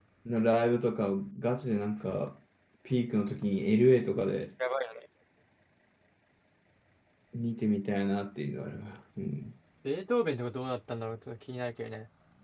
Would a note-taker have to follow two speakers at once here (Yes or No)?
No